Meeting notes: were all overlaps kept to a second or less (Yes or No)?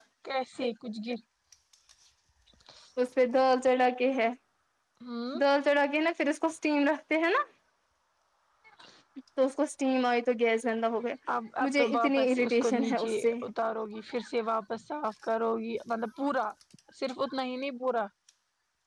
No